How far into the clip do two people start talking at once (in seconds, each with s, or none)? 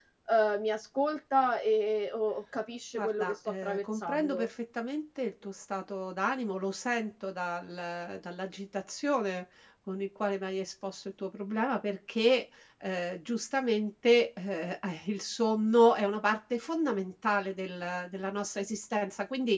3.0 s